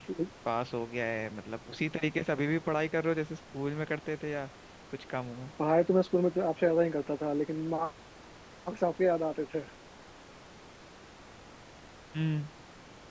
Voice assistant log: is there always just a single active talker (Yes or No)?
Yes